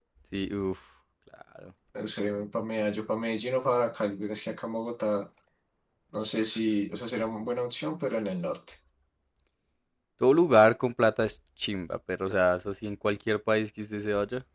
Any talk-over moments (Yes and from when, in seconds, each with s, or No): No